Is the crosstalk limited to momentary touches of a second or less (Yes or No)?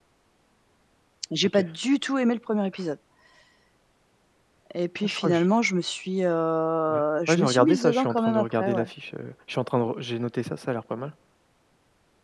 No